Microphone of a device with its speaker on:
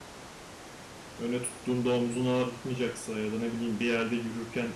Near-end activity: present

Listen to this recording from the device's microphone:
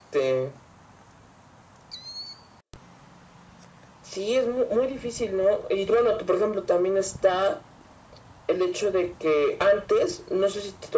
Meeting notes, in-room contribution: none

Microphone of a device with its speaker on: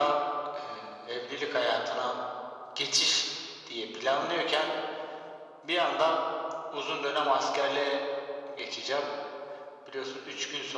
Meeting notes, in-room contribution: none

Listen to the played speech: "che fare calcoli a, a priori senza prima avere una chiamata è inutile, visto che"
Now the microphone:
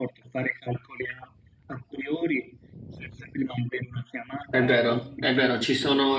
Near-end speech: present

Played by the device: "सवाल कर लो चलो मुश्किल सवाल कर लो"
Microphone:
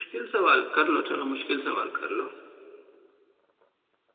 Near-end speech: none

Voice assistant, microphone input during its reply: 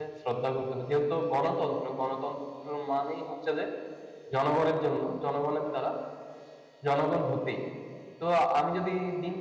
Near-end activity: present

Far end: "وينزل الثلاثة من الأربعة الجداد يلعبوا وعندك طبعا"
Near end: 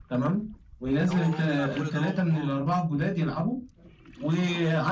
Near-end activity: present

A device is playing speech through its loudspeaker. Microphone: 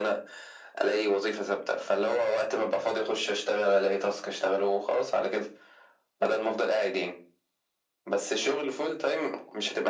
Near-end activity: none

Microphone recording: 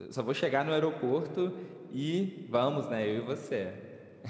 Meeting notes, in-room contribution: present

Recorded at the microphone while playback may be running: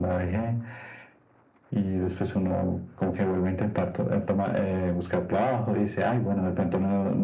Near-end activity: none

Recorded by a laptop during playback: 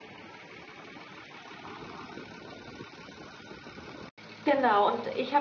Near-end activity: present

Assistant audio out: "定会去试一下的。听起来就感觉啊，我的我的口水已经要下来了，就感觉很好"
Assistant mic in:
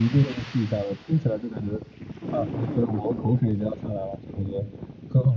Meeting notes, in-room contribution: none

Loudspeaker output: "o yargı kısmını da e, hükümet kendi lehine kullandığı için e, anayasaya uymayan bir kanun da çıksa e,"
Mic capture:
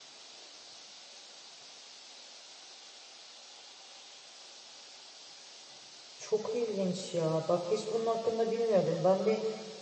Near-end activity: present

